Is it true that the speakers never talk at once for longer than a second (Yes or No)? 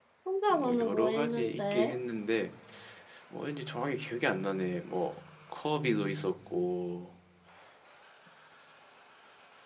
No